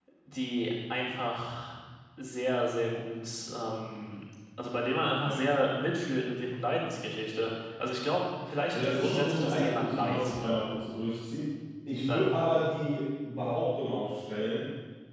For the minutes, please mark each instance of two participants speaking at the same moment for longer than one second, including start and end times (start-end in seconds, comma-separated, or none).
8.7-10.3